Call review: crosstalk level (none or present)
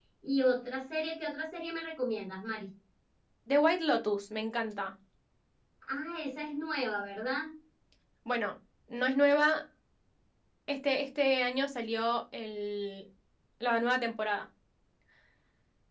none